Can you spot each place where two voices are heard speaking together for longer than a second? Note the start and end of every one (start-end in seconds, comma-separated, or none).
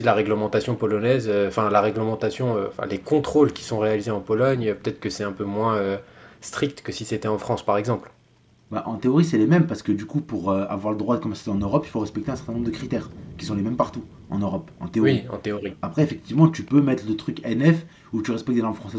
none